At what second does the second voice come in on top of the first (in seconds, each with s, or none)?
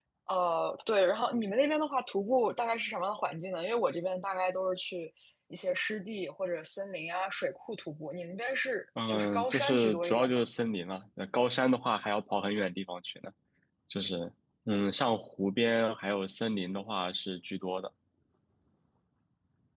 9.0 s